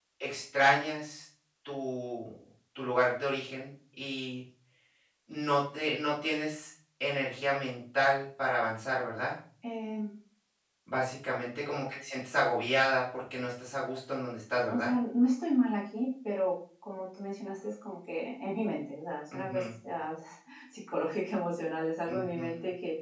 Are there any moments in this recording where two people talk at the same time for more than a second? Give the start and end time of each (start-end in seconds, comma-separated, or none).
none